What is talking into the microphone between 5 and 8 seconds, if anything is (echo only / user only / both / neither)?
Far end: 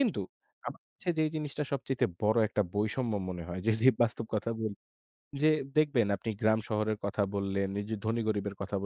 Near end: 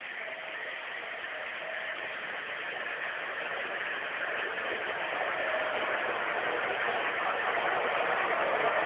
neither